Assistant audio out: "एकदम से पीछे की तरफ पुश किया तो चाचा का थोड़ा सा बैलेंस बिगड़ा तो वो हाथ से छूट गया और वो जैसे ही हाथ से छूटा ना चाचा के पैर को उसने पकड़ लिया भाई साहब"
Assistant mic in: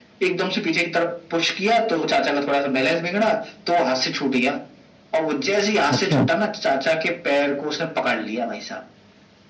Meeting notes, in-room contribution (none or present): present